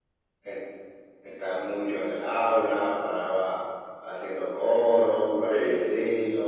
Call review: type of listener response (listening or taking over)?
listening